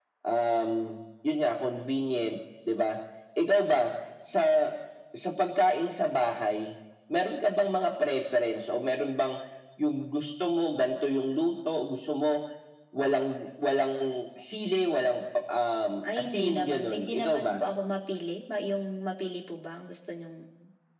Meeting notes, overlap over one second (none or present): present